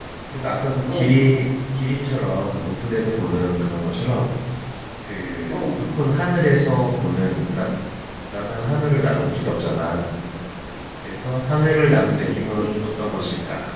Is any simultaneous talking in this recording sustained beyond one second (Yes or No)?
Yes